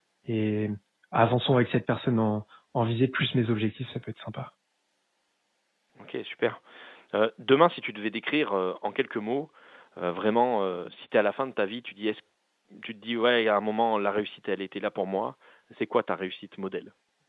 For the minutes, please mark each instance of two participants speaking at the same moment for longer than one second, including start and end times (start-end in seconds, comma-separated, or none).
none